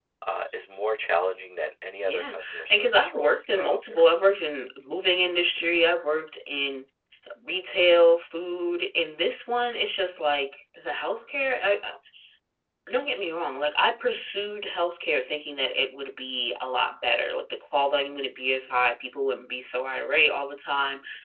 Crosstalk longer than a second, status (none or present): present